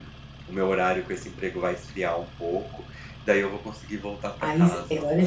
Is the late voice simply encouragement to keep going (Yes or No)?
No